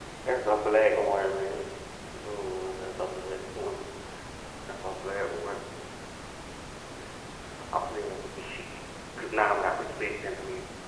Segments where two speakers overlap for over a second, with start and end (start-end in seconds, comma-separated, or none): none